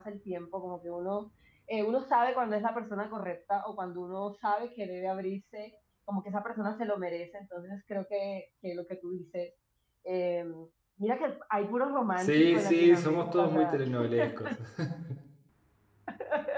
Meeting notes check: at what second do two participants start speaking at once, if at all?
12.2 s

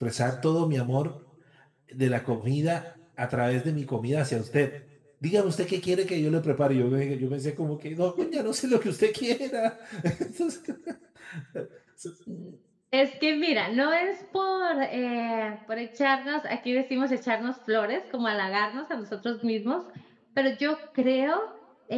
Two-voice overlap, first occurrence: none

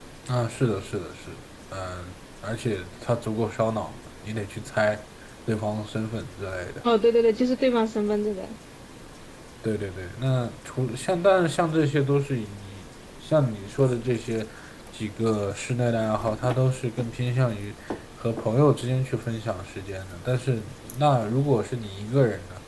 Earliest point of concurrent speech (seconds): none

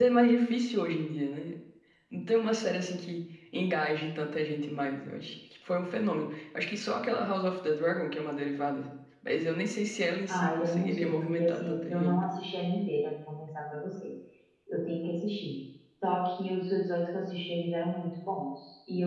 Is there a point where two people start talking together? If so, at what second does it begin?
10.3 s

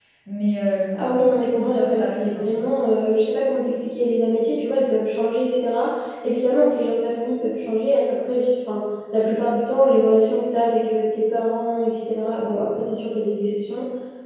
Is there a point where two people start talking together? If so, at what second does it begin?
0.9 s

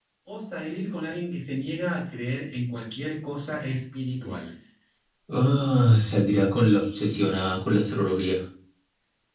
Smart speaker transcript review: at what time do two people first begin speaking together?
none

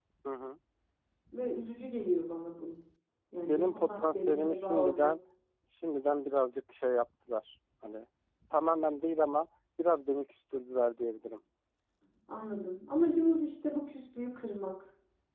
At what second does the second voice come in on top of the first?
3.4 s

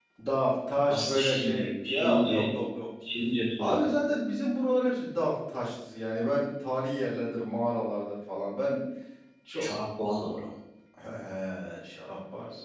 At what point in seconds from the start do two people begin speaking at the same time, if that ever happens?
0.9 s

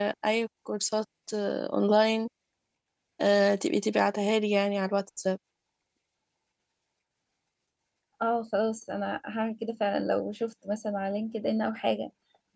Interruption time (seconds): none

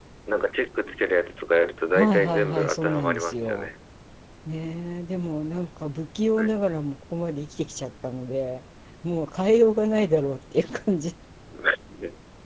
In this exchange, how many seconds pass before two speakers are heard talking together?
1.9 s

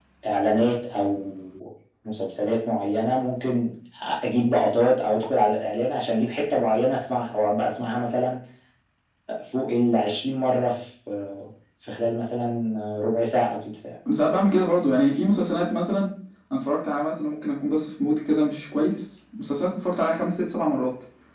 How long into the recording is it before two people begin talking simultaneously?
none

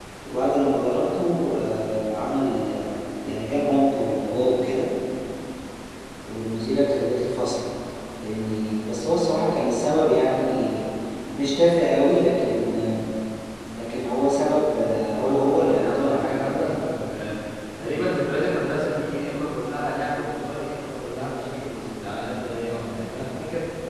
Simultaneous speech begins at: 15.2 s

